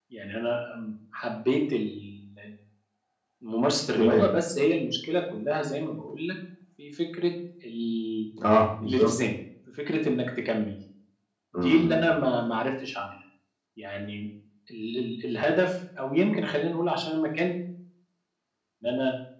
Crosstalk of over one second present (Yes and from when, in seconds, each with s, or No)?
No